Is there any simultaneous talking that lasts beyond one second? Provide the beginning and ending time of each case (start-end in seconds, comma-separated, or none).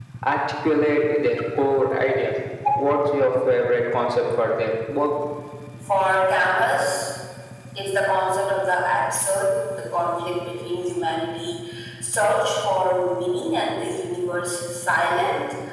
none